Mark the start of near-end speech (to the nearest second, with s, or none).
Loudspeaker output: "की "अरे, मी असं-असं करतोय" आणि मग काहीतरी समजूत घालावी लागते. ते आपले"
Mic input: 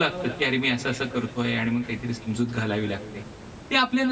none